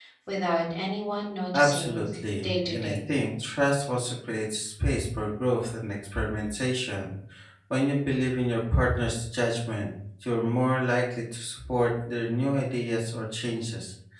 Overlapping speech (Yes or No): Yes